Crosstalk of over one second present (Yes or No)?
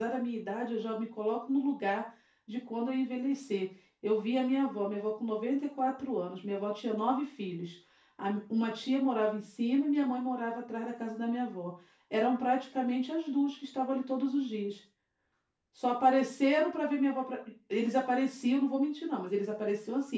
No